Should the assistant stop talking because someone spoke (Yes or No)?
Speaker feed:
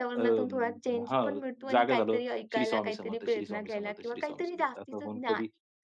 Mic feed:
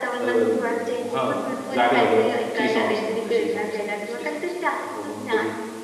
No